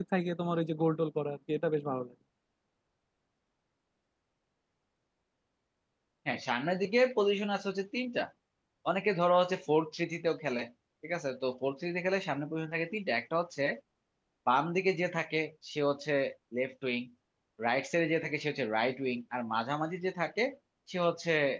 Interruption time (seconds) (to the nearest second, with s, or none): none